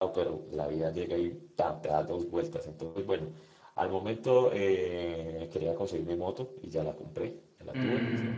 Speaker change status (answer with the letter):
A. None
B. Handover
A